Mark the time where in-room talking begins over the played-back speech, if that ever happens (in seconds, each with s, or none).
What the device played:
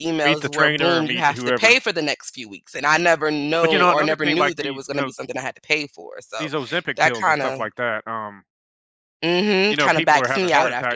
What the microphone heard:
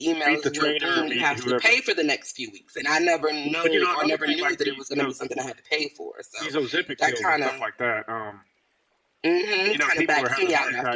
none